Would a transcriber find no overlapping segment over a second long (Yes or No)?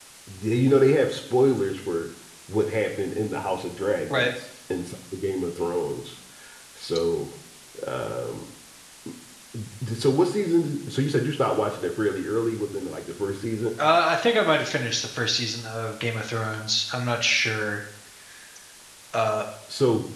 Yes